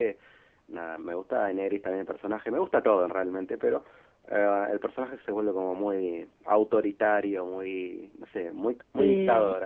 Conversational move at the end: taking over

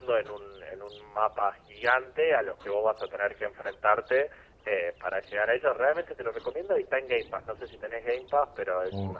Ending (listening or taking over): taking over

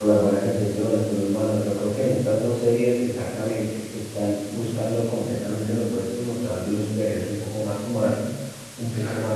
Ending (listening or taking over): listening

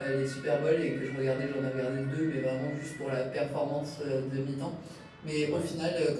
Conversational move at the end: listening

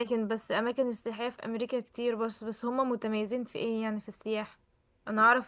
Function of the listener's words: listening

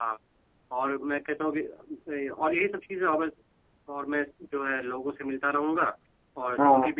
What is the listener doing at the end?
listening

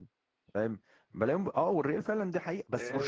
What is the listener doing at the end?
taking over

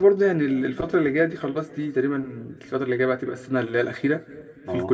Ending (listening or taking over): listening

